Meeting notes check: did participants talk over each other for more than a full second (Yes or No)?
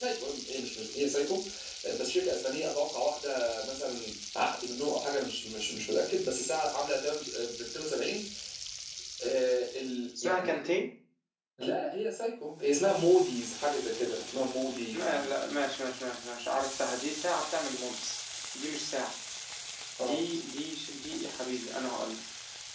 No